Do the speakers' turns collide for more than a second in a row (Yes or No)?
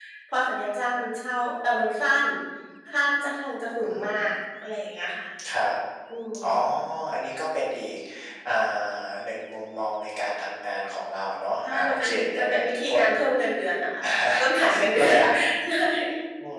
Yes